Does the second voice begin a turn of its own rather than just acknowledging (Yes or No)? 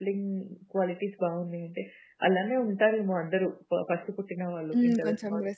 Yes